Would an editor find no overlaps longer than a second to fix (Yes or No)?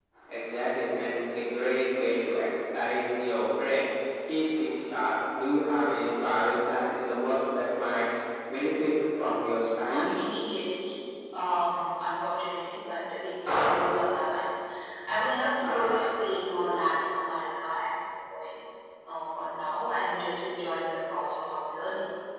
Yes